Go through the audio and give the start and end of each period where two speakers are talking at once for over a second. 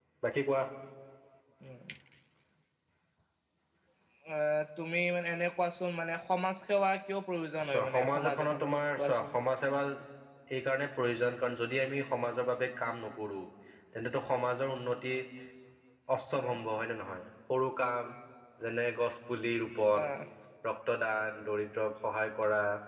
7.7-9.4

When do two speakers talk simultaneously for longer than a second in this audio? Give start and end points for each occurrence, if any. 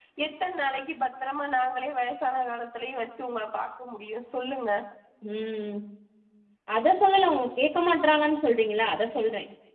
none

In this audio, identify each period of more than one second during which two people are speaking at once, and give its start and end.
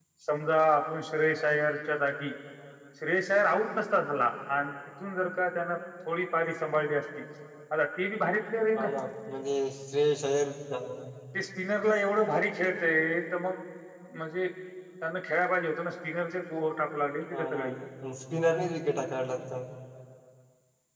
none

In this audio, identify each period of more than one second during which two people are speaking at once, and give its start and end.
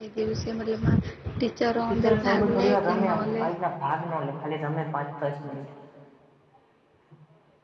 1.9-3.4

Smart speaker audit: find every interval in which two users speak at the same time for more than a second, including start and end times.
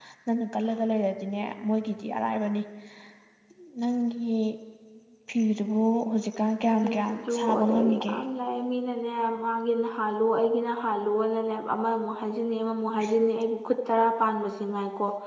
6.8-8.2

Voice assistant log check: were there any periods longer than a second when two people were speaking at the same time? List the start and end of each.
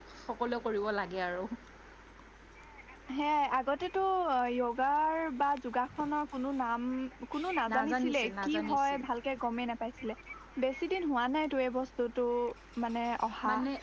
7.7-9.0

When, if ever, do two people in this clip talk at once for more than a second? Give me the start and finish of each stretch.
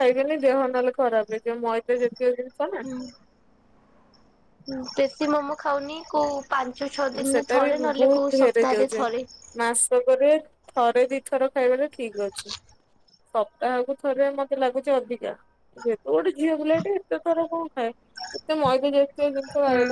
7.2-9.1

